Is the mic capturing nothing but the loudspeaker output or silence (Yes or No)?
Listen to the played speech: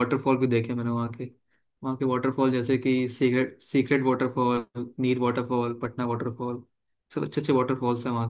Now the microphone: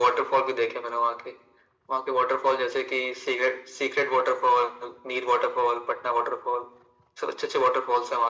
Yes